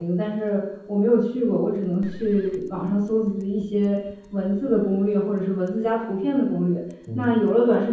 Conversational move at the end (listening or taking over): listening